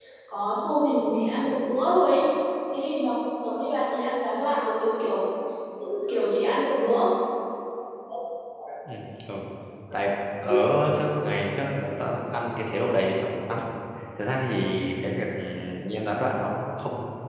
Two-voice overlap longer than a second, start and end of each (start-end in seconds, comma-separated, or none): none